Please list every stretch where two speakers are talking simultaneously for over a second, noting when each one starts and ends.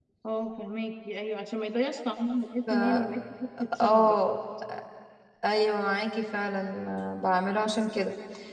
none

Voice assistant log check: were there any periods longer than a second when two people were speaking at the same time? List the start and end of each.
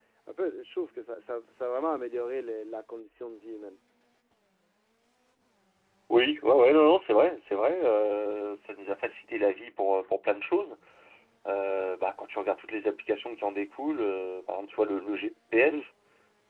none

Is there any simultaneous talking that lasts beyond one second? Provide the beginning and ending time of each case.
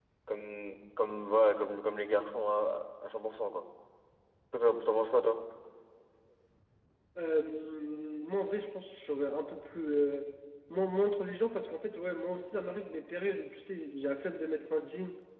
none

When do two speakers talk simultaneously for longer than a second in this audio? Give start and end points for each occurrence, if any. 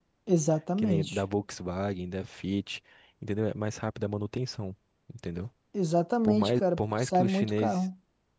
6.2-7.8

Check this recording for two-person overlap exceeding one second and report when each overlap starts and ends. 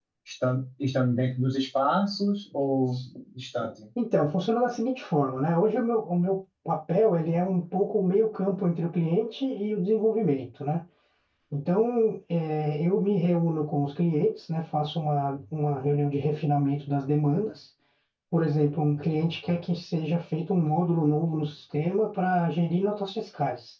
none

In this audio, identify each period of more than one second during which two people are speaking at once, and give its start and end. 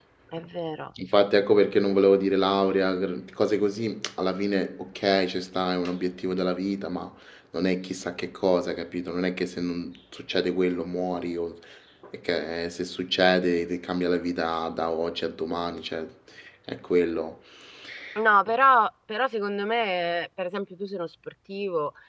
none

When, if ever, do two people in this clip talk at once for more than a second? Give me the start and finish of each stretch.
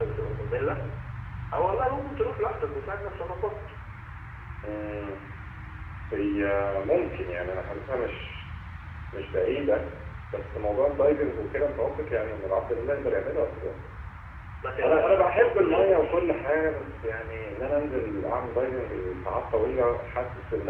14.8-16.2

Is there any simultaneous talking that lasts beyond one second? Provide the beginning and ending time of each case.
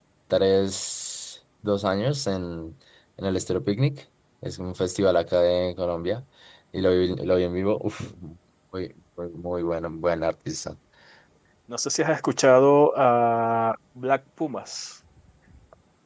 none

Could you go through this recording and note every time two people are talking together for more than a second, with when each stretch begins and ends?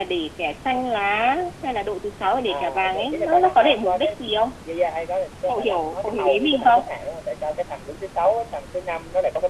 2.5-4.1, 5.5-6.8

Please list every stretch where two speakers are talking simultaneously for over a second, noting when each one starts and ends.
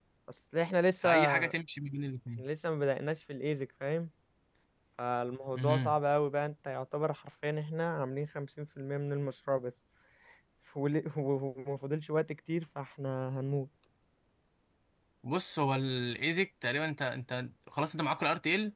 none

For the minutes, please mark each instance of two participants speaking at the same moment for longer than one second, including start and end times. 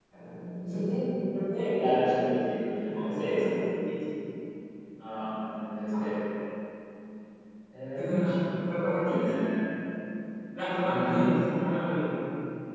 1.8-3.4

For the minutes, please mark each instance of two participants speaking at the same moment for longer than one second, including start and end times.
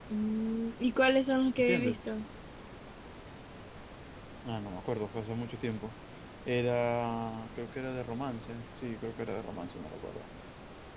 none

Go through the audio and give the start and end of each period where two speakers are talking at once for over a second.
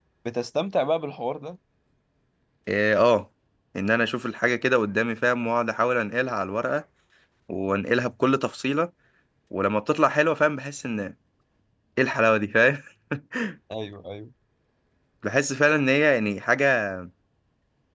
none

